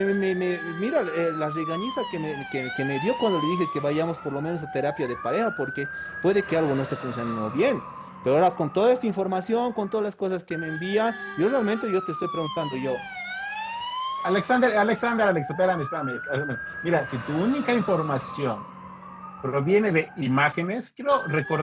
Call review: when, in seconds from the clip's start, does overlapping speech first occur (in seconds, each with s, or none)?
none